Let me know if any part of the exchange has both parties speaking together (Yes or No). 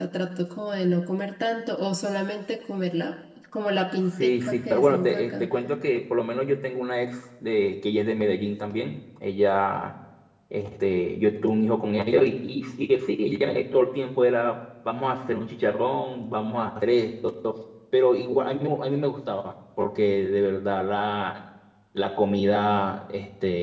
Yes